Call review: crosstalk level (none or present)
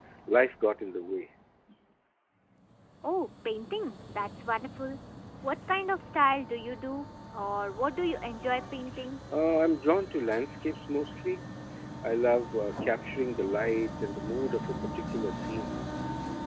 none